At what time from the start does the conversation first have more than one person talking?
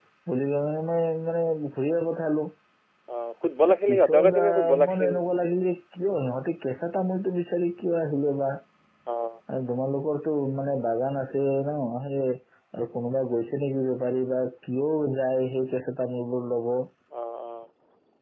3.6 s

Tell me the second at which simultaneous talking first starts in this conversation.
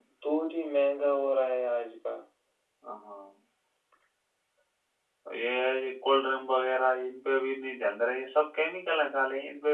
none

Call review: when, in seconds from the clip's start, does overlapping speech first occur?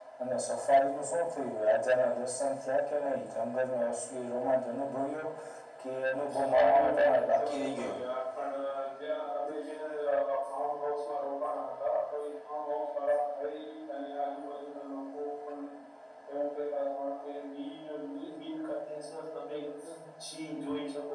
6.3 s

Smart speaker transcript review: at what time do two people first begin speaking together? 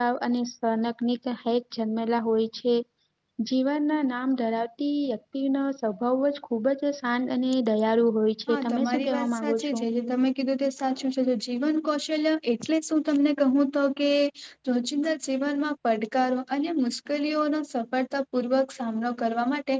8.5 s

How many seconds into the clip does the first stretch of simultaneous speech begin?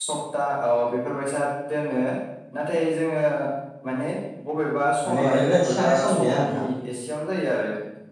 5.1 s

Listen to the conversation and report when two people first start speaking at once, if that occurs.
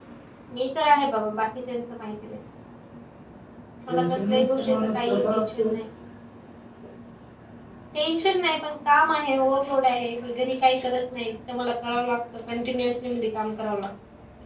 3.9 s

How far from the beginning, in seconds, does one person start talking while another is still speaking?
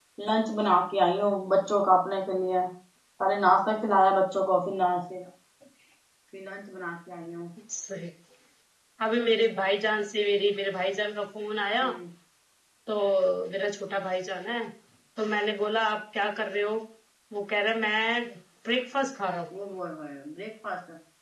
none

